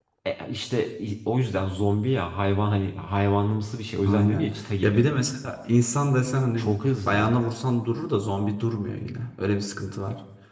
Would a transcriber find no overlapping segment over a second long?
Yes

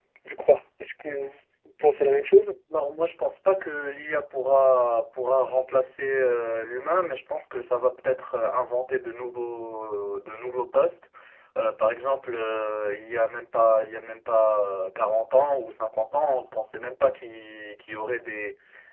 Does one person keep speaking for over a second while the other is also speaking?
No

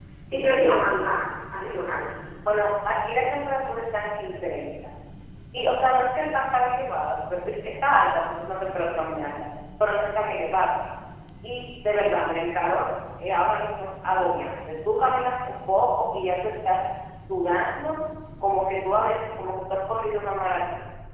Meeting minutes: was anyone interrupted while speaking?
No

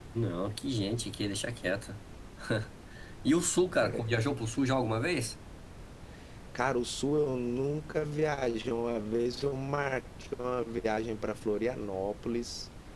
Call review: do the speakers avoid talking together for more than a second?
Yes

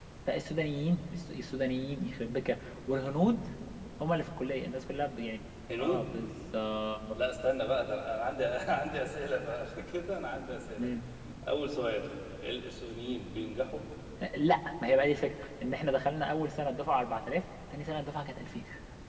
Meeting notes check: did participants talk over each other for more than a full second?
No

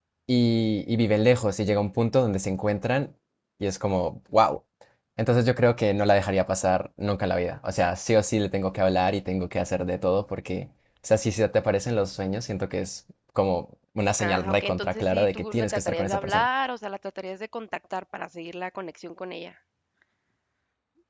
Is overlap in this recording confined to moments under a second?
No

